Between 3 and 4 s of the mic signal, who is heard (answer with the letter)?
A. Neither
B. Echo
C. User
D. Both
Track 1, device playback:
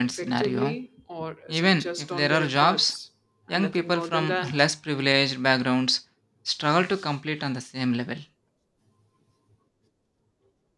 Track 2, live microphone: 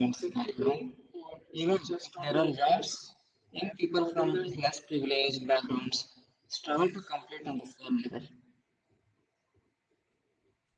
B